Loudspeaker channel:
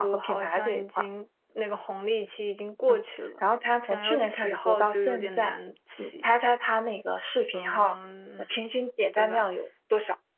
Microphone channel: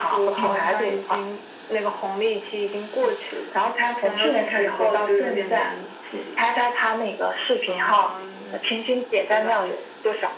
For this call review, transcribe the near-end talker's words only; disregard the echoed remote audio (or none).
哦